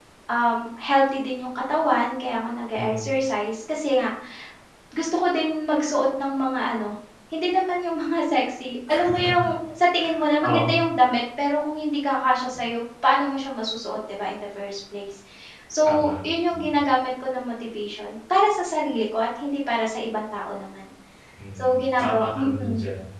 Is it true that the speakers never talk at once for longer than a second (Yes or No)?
No